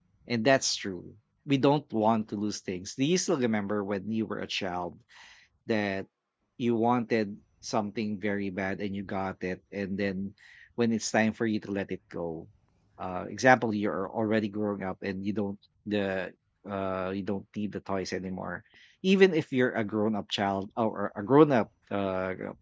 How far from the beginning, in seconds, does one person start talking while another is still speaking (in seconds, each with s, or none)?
none